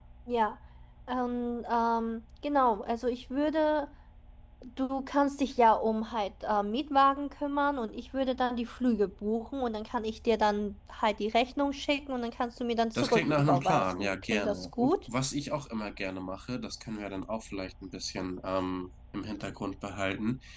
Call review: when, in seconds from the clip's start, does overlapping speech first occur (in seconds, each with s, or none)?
12.9 s